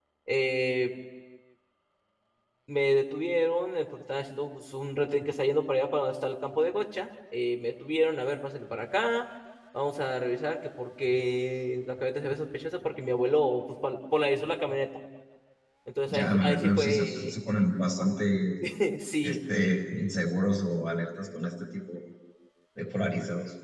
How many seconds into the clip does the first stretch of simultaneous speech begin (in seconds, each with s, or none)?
16.1 s